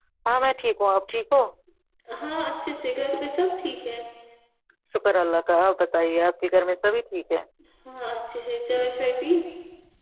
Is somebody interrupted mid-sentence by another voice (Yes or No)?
No